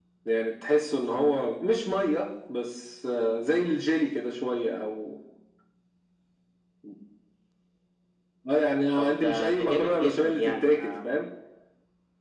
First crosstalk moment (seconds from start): 9.0 s

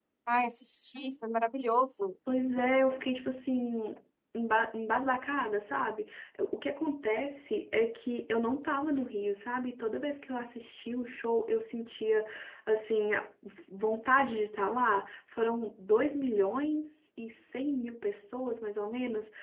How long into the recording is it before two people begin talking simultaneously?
none

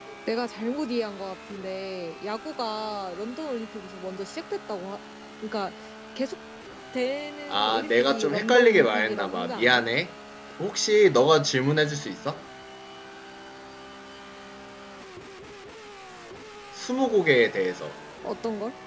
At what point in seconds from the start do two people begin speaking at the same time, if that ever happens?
7.5 s

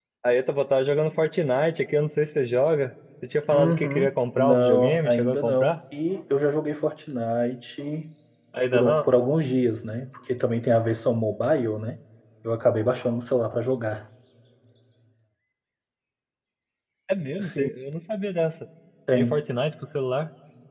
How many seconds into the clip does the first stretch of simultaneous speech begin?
3.5 s

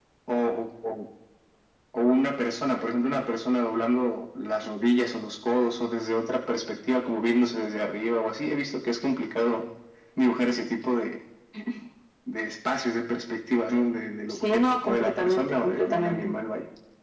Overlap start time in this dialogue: 14.3 s

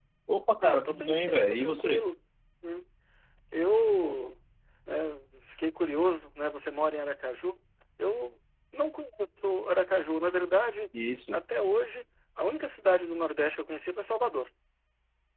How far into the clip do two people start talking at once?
0.6 s

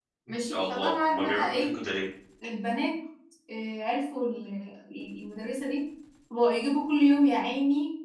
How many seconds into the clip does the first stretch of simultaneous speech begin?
0.5 s

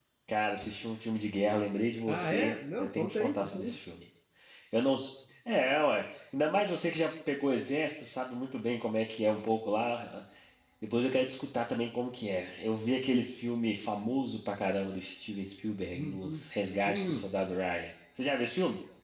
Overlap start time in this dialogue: 2.1 s

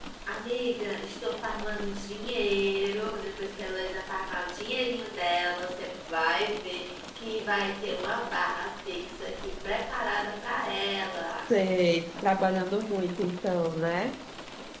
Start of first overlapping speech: none

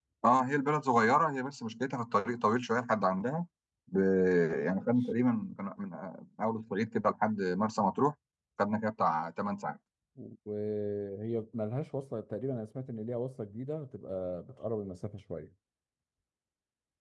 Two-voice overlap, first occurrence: none

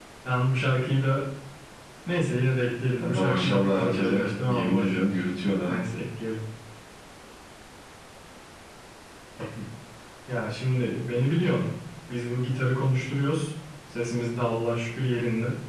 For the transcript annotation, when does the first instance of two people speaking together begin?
3.0 s

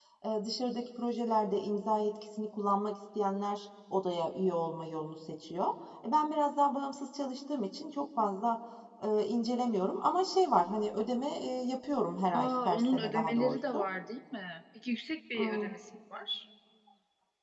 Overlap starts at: 12.3 s

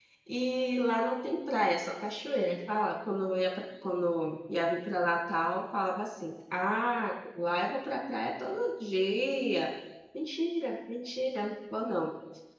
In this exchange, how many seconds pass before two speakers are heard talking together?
none

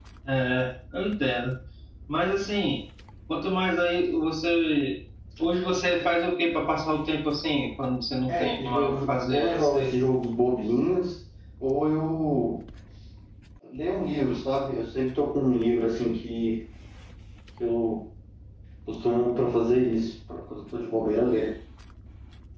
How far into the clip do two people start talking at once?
8.3 s

